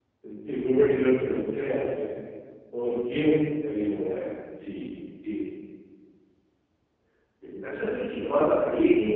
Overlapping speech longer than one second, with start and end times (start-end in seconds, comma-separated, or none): none